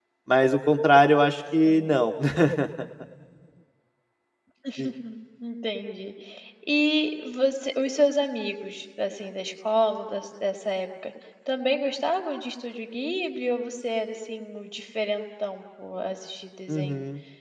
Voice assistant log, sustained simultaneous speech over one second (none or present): none